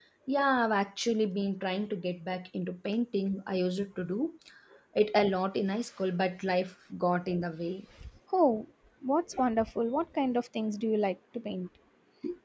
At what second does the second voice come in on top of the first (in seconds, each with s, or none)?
none